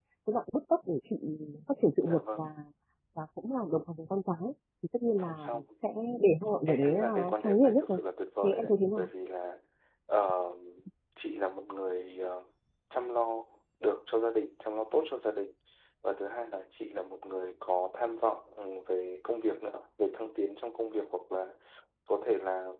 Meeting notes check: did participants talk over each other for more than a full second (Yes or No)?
Yes